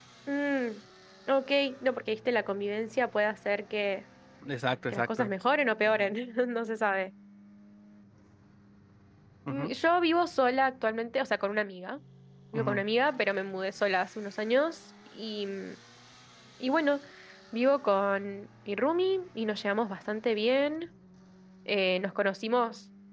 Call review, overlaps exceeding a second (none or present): none